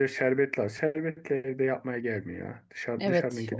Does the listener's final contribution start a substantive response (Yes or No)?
Yes